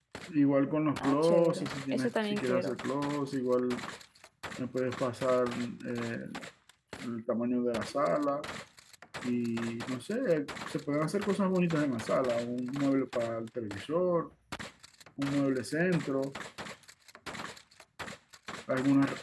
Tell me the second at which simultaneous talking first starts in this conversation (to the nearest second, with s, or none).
1 s